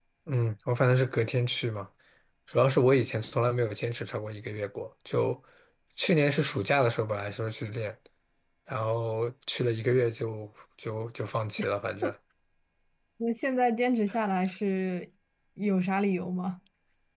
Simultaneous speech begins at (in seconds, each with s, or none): none